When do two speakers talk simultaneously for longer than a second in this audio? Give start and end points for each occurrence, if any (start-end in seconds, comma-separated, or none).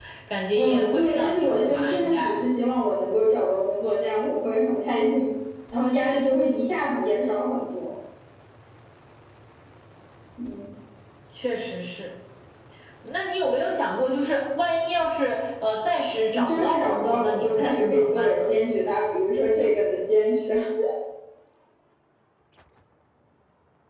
0.5-2.4, 16.3-18.5